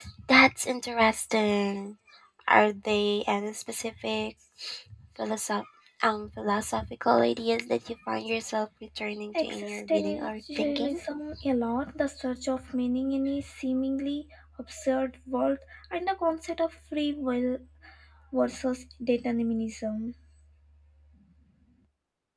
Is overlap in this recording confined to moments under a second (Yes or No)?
No